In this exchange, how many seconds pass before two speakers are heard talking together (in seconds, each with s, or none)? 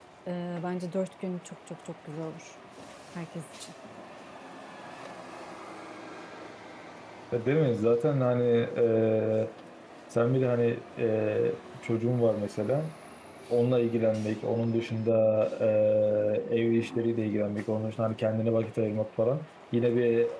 none